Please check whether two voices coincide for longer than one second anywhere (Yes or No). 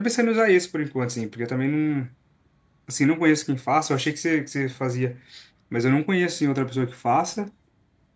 No